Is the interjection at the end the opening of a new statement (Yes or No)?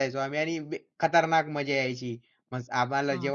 No